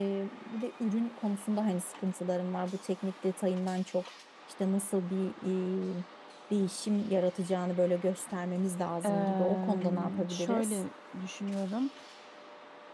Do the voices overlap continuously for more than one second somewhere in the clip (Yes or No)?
Yes